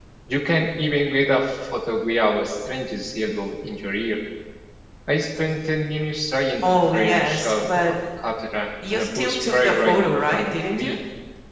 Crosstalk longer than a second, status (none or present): present